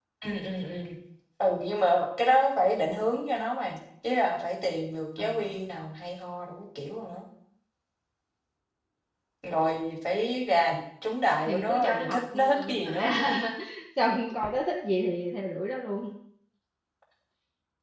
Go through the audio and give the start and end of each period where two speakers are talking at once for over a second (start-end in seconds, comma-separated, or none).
11.5-13.1